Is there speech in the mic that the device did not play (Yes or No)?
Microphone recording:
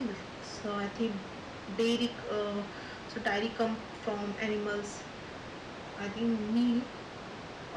Yes